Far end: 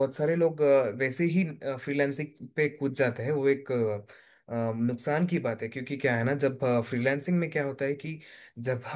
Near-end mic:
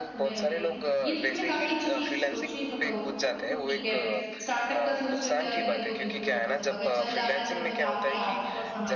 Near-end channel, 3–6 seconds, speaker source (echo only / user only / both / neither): both